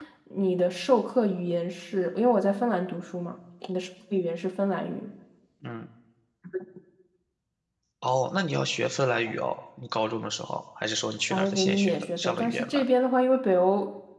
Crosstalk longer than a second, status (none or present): present